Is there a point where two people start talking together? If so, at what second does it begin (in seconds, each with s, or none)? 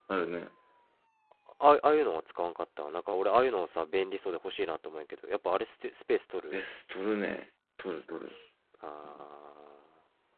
none